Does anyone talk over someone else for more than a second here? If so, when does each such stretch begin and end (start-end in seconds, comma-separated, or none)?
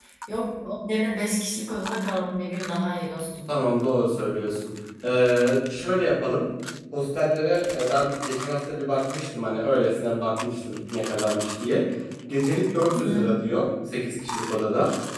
none